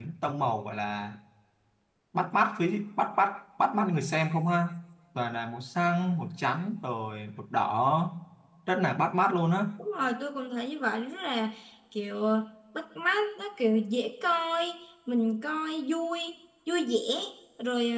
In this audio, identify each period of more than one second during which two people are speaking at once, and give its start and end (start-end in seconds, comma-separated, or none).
none